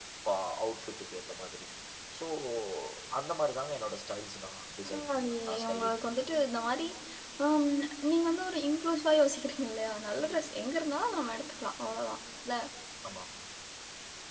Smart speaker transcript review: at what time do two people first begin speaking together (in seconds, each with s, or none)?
4.8 s